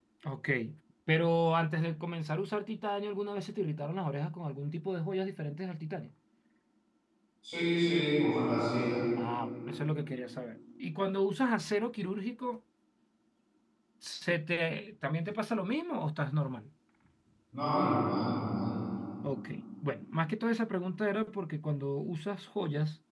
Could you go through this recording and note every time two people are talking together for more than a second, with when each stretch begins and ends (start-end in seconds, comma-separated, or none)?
none